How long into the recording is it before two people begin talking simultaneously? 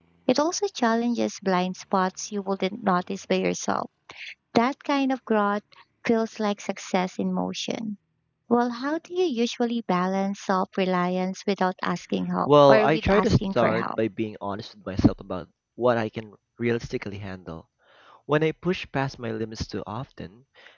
12.5 s

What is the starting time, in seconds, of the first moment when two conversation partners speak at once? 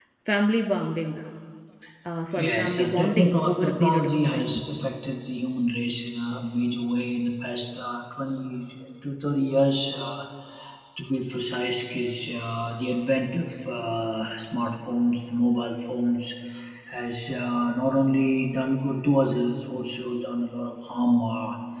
2.4 s

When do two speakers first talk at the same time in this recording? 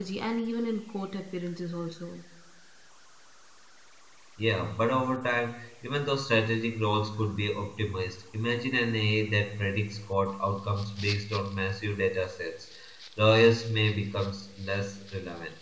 none

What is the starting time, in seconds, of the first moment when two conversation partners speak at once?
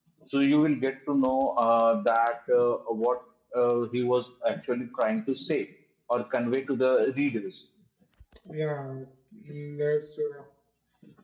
none

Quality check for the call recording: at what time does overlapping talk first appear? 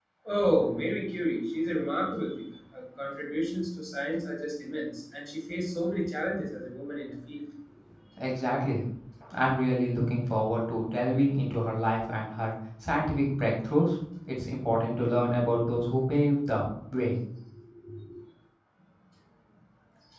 none

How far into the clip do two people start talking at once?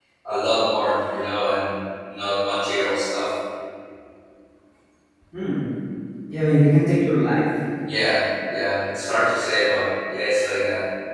none

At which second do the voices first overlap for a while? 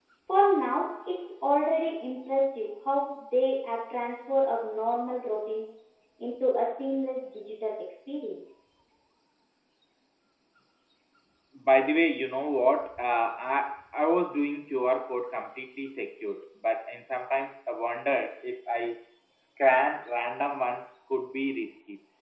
none

